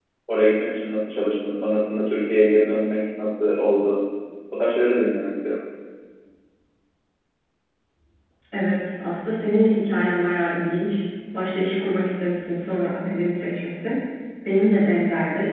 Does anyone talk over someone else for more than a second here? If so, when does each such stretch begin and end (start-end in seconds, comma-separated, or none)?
none